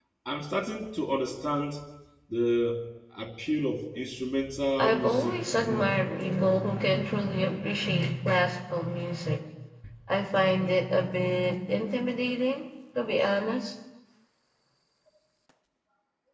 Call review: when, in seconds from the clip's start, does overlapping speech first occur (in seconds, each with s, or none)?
4.8 s